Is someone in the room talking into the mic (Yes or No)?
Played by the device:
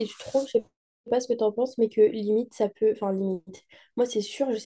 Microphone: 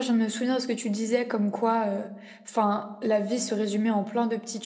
Yes